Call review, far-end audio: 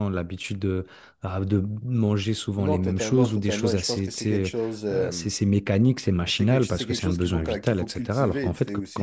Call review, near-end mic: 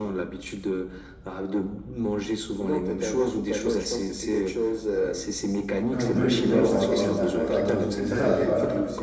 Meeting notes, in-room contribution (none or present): present